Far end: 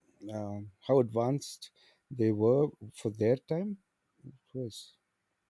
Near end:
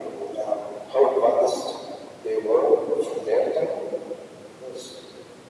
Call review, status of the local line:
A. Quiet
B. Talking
A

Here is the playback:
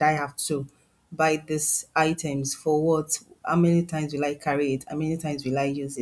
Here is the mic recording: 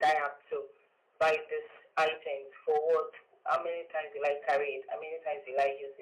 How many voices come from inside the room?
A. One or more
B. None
B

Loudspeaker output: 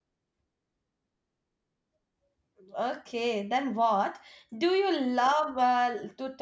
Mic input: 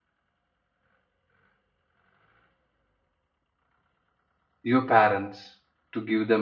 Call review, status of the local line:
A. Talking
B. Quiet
A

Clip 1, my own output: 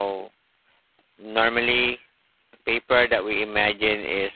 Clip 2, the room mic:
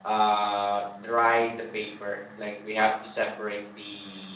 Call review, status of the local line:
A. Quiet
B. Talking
B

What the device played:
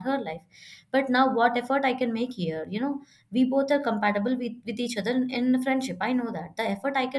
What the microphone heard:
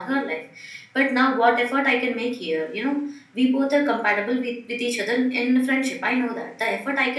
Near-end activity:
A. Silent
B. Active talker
A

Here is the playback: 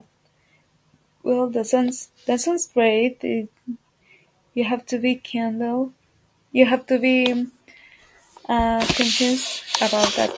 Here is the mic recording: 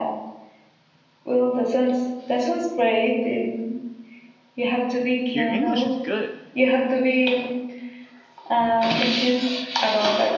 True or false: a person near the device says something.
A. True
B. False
A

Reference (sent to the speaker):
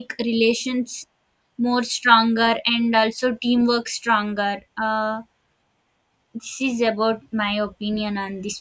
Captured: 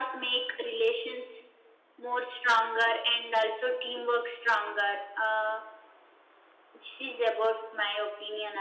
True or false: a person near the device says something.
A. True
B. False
B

